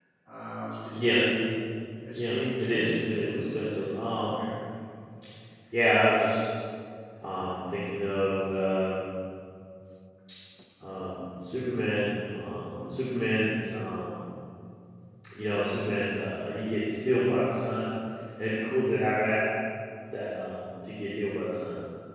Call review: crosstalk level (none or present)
present